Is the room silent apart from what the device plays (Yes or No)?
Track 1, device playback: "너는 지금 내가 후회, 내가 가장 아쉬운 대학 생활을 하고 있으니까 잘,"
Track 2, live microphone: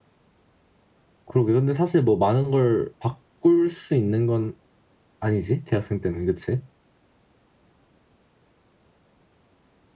No